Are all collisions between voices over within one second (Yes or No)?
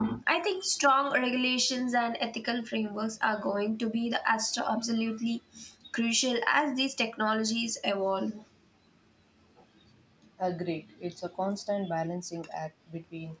Yes